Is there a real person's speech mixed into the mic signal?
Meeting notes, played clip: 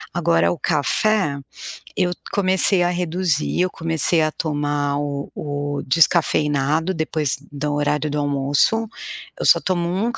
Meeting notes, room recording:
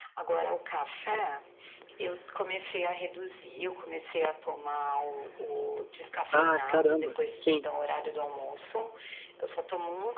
Yes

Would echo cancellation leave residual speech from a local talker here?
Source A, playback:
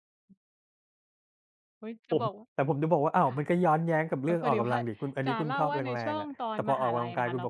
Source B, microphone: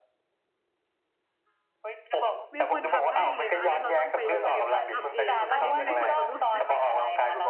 Yes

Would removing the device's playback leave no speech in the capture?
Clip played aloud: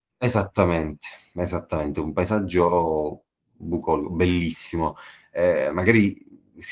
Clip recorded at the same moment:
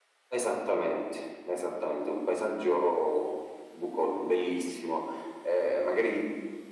Yes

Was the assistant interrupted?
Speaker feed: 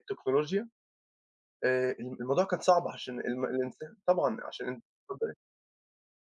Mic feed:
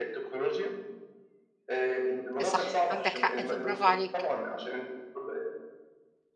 Yes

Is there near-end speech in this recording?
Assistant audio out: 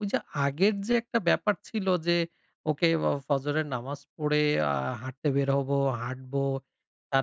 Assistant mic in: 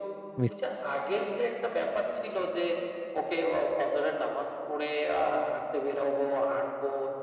Yes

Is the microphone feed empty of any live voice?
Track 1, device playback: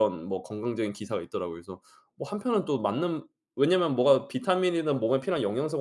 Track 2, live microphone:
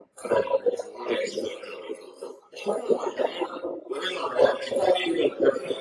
Yes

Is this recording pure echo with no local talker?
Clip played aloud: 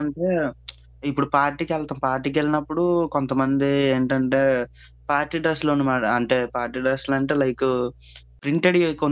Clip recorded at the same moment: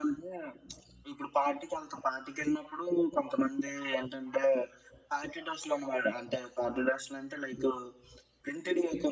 Yes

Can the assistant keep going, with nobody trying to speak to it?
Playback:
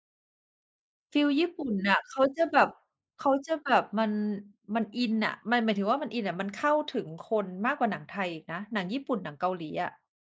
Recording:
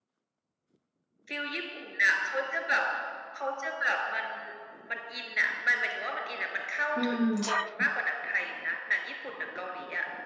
No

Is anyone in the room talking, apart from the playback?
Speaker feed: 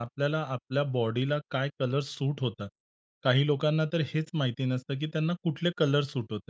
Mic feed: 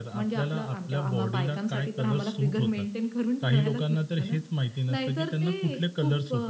Yes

